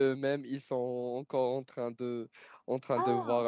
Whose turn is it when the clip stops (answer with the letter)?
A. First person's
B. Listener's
A